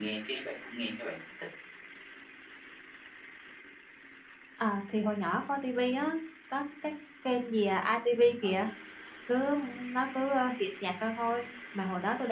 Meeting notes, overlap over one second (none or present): none